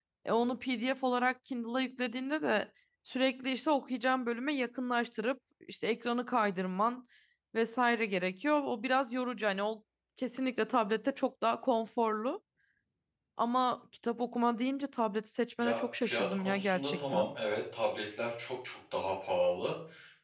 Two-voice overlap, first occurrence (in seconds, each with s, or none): 15.6 s